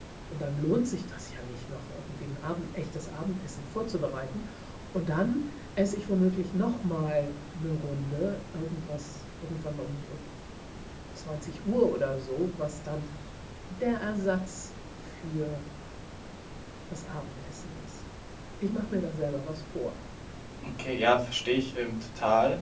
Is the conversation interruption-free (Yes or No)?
Yes